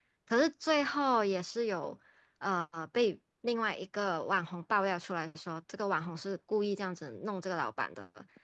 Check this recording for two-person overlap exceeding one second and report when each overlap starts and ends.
none

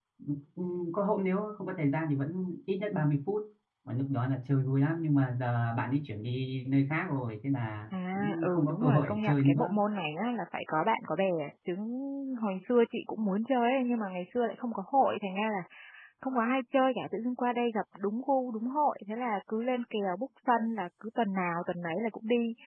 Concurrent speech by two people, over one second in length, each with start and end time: 8.1-9.8

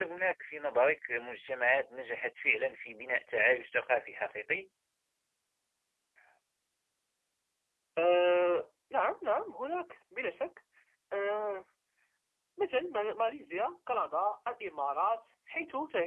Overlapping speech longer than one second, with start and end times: none

